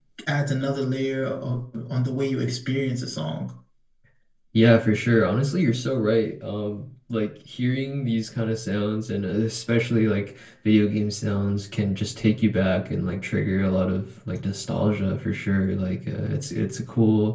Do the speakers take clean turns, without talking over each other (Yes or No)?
Yes